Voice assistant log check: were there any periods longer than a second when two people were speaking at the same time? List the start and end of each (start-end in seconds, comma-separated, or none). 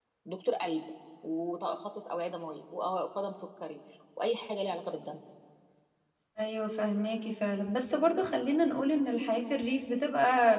none